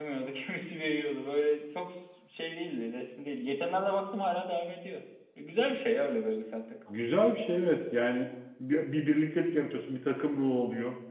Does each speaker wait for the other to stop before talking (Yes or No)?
Yes